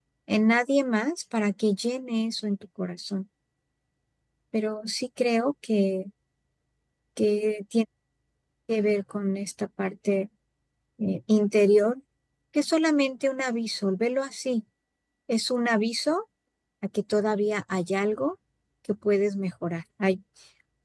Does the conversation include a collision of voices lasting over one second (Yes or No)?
No